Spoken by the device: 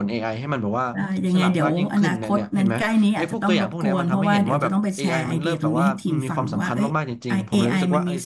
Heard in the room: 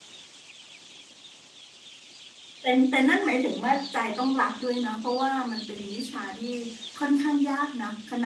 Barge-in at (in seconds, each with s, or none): 2.6 s